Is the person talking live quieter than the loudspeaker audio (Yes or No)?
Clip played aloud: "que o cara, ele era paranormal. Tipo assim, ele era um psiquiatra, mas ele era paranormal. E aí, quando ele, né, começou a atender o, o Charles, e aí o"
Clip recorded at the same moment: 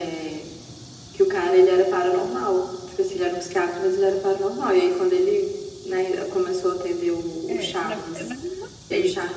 Yes